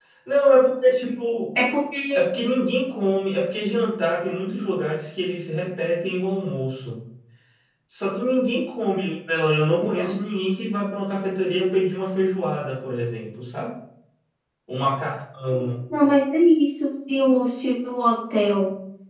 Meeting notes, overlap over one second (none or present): none